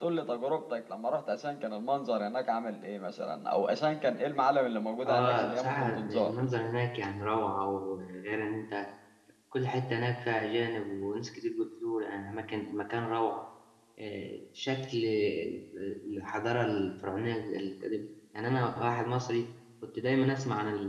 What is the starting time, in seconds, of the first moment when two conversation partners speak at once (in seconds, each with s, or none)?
5.0 s